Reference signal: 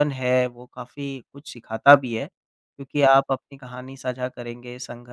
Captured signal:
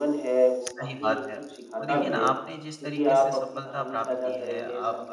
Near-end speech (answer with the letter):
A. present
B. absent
A